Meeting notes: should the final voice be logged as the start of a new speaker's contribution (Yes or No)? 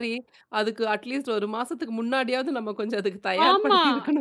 Yes